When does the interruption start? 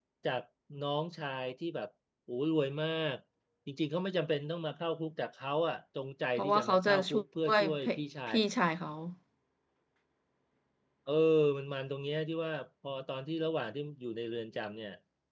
6.4 s

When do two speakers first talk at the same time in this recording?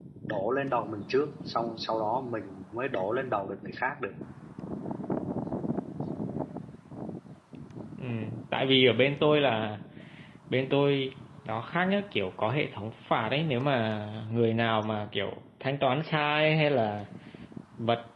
none

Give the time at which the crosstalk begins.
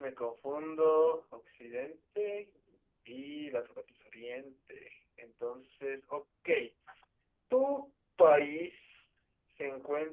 none

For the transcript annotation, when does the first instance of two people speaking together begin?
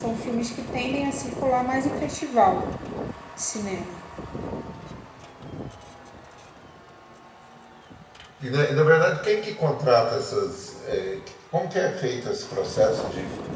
none

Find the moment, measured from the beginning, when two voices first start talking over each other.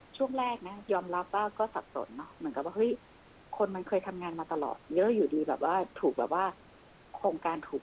none

